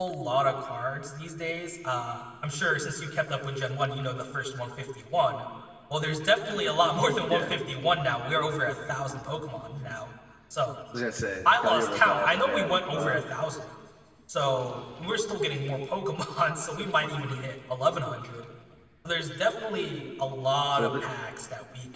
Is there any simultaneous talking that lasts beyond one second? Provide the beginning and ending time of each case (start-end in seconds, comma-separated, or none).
11.4-13.2